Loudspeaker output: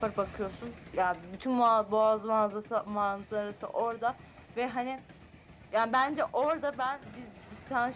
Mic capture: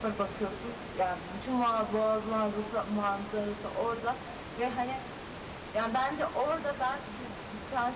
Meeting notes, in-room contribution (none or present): none